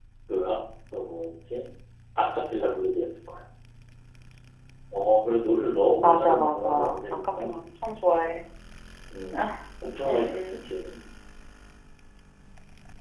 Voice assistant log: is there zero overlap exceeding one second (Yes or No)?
No